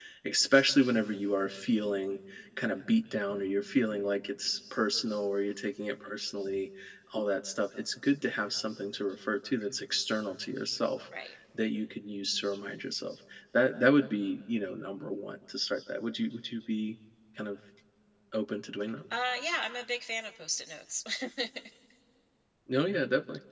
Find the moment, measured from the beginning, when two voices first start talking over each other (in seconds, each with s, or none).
none